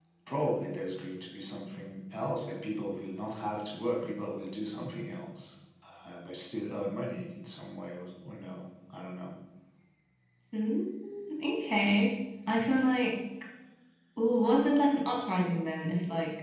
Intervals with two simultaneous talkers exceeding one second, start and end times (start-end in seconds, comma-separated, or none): none